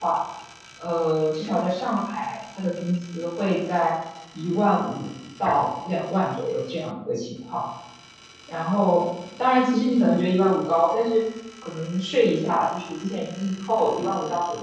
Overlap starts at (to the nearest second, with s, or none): none